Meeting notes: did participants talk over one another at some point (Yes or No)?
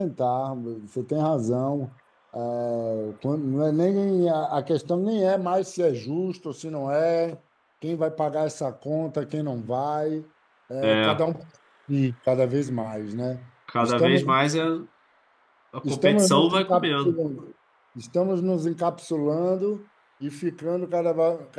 Yes